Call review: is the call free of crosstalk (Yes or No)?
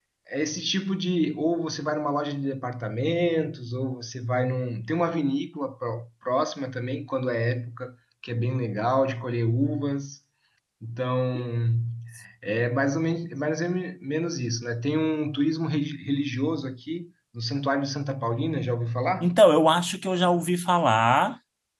Yes